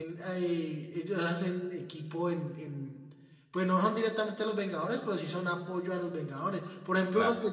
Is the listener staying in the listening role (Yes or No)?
Yes